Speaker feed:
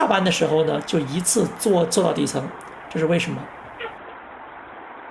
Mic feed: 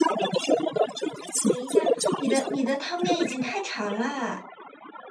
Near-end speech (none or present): present